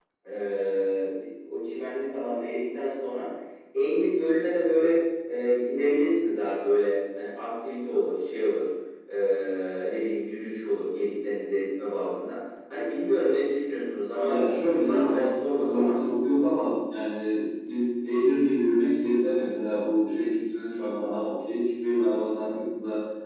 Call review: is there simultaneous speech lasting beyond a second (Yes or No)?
Yes